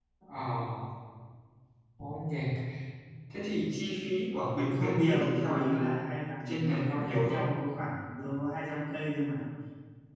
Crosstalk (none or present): present